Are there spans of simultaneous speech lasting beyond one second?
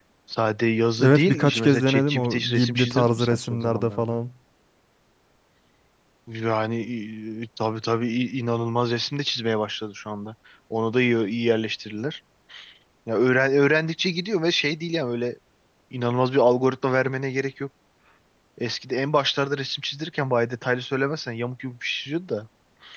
Yes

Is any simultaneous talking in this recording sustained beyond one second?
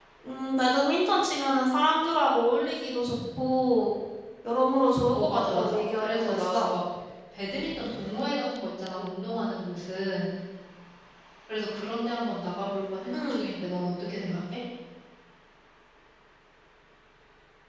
Yes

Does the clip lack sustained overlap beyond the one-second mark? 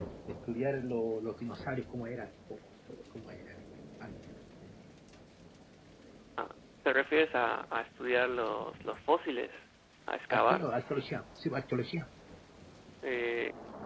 Yes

